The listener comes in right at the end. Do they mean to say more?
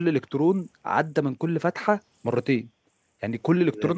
Yes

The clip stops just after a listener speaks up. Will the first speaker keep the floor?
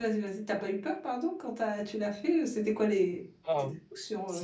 No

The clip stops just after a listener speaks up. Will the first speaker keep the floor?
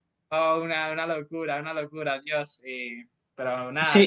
No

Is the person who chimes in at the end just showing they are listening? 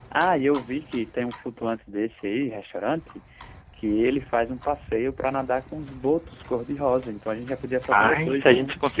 No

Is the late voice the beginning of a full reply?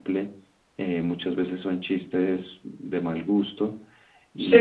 Yes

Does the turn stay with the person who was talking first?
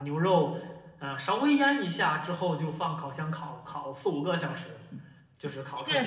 No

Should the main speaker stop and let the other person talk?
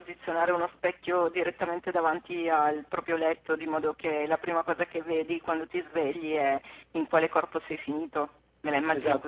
Yes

